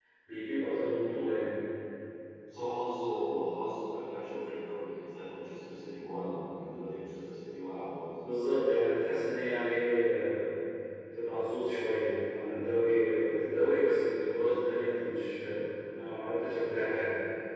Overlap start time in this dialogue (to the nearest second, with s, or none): none